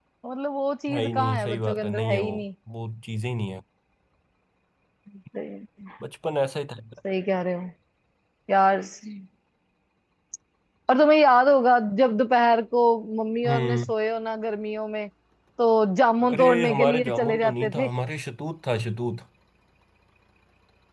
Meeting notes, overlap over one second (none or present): present